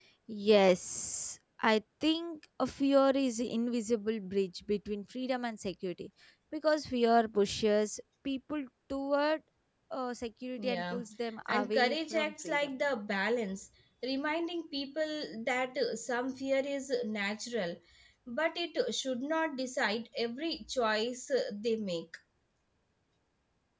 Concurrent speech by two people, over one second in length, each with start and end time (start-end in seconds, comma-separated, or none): 11.5-12.7